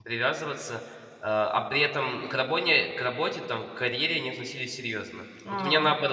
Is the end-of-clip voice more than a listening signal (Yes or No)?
No